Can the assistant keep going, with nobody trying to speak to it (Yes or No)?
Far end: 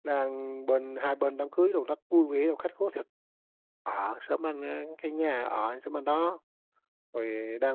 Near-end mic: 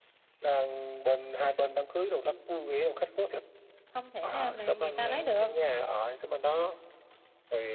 No